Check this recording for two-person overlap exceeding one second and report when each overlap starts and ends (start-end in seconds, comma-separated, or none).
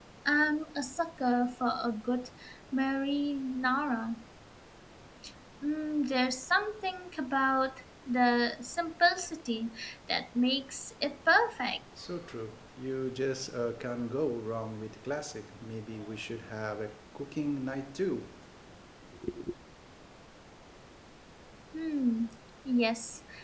none